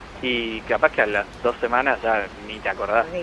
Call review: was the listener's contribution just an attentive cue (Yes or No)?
No